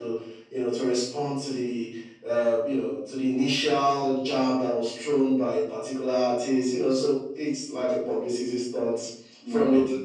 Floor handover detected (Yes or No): Yes